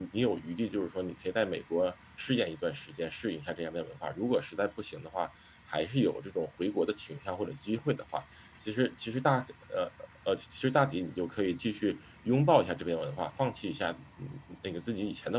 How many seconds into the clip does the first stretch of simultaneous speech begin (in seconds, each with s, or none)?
none